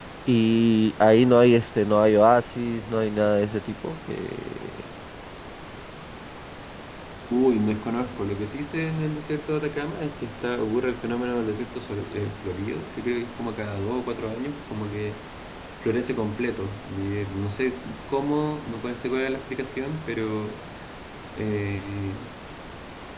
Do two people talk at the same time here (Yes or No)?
No